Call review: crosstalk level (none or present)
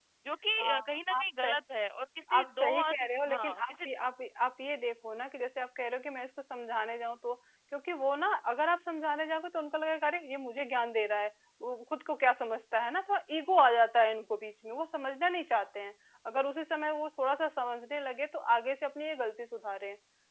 present